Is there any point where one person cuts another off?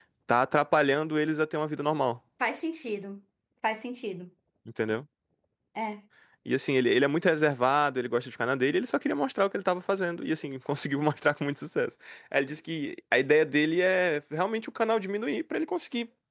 No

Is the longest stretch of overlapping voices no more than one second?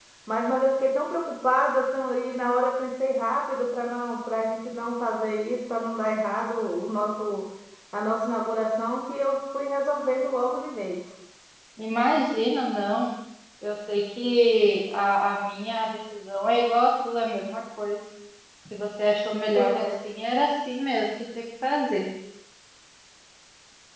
Yes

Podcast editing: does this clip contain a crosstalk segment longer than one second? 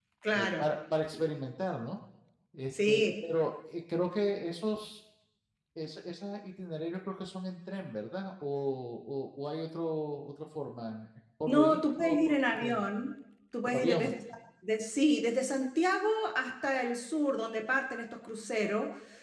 Yes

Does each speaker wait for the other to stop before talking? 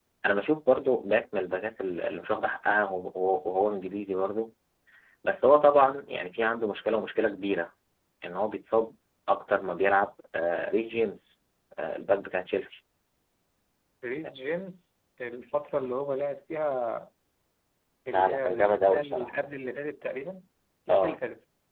No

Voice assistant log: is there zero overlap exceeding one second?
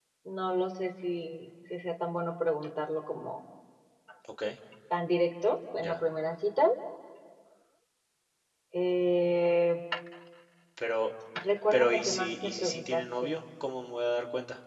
No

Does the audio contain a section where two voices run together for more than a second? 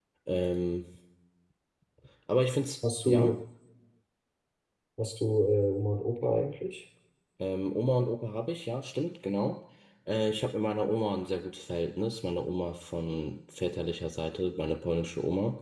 No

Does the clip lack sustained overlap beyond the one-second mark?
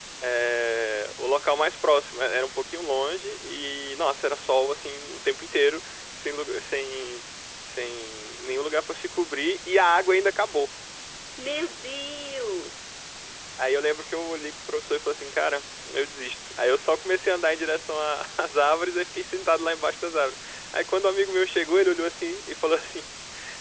Yes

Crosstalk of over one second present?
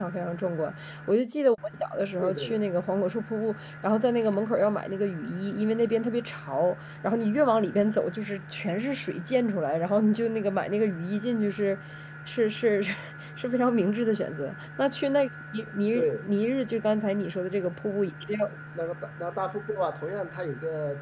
No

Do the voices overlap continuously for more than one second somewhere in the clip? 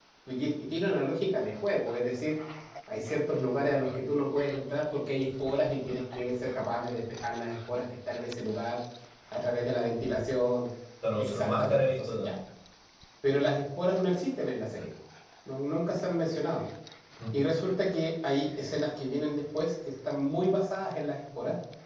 Yes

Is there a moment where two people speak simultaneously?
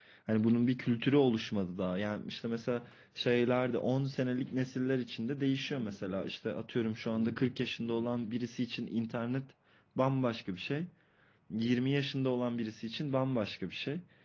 No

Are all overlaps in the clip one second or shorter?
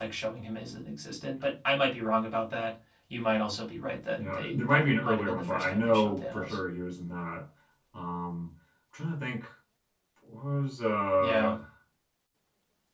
No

